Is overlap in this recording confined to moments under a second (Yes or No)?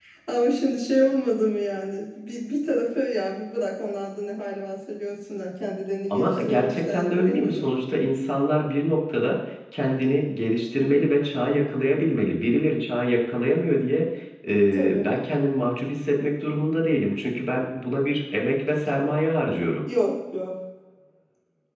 No